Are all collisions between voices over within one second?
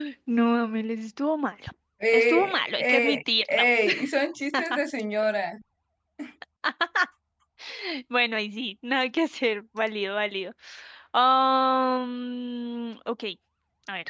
No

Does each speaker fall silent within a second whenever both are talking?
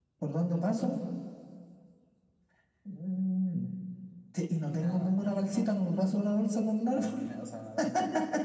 No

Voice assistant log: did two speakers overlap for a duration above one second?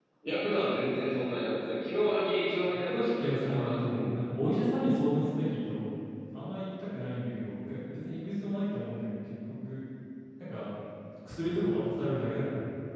Yes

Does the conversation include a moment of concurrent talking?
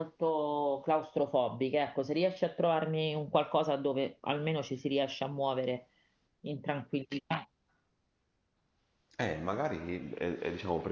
No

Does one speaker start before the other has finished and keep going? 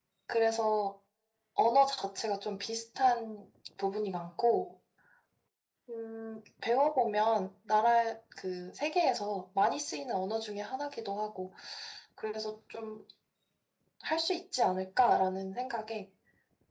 No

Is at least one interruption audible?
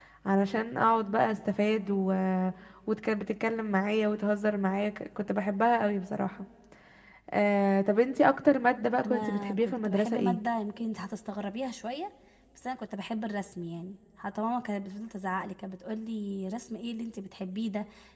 Yes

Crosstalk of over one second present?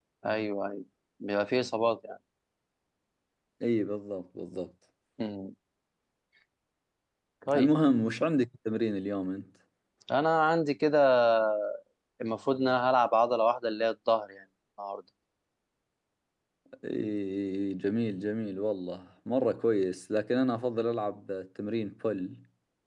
No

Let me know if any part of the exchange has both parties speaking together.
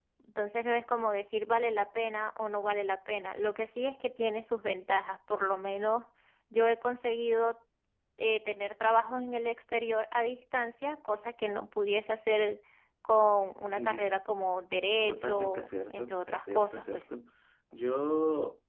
Yes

